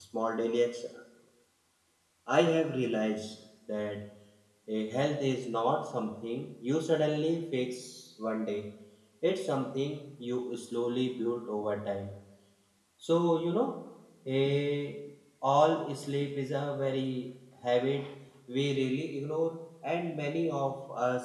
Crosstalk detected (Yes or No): No